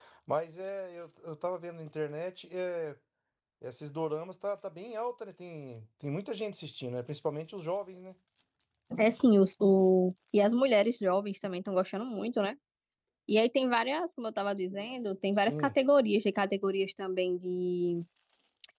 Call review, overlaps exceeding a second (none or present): none